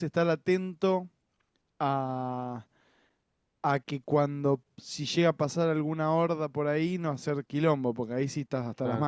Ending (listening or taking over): taking over